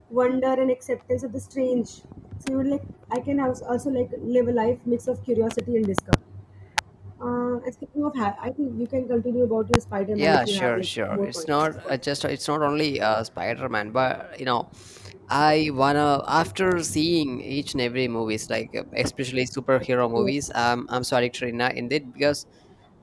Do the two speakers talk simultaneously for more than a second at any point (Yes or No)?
Yes